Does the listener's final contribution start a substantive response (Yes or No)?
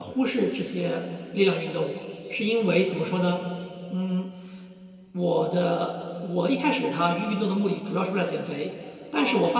No